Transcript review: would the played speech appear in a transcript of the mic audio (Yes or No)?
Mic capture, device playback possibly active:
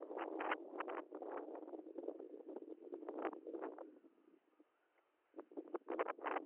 No